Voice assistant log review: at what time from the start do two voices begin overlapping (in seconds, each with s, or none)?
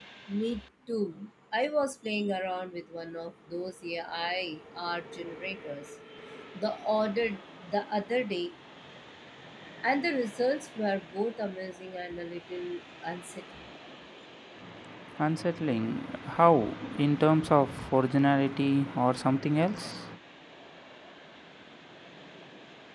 none